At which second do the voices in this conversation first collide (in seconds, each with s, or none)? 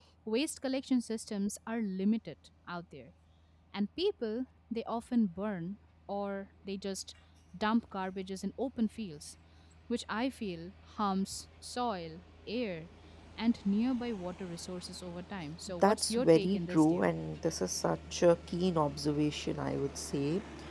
15.8 s